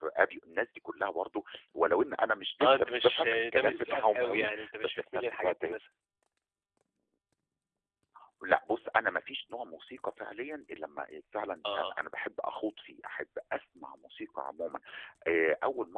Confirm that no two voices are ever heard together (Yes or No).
No